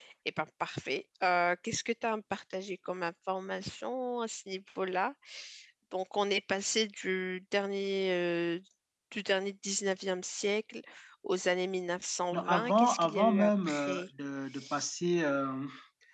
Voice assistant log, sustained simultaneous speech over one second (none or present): present